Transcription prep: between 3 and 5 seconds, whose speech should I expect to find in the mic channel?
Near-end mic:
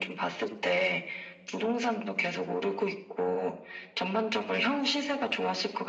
echo only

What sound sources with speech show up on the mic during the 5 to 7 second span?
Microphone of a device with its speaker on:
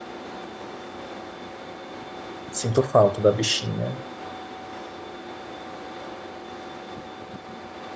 neither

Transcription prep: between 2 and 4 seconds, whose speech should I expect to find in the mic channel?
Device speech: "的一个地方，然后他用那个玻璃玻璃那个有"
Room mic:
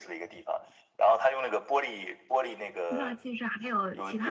both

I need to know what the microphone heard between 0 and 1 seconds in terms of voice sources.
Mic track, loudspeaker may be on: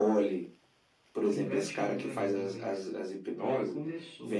echo only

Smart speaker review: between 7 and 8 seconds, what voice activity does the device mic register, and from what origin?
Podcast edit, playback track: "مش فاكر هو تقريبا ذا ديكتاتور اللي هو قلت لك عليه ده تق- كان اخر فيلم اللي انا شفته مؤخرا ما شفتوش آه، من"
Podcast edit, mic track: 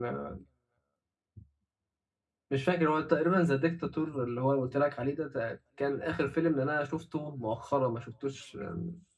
echo only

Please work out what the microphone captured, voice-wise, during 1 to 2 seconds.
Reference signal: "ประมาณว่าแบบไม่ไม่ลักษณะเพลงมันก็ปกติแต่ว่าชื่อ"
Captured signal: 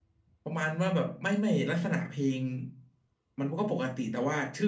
echo only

